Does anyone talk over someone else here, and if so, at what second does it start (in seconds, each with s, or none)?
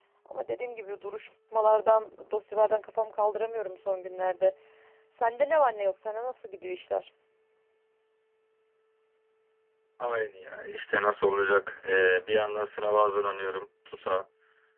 none